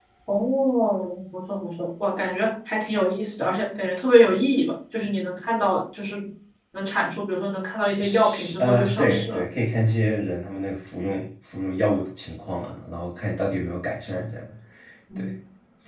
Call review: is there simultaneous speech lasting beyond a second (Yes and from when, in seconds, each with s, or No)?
Yes, from 8.0 s